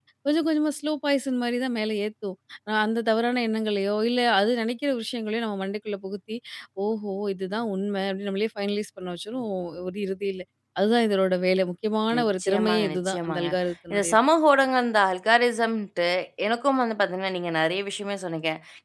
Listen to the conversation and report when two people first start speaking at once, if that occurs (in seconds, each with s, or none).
12.2 s